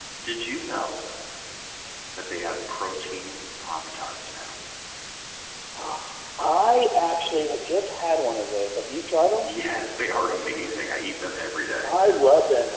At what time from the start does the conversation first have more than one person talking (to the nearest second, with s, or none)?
none